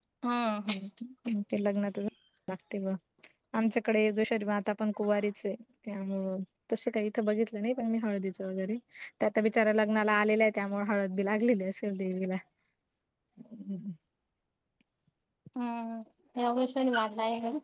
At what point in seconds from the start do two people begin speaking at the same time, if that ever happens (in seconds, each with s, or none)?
none